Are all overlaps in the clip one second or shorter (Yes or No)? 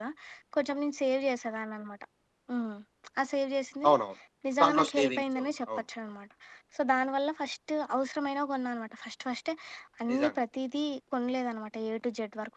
No